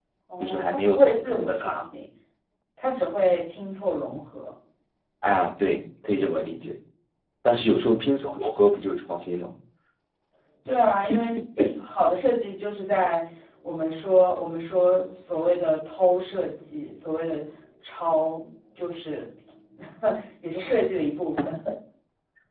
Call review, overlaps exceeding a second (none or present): present